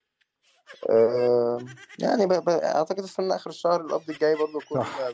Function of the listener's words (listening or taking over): taking over